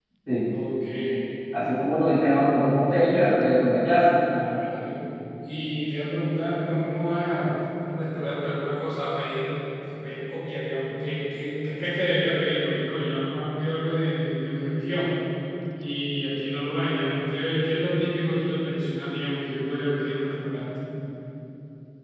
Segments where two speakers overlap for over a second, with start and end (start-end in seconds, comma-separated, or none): none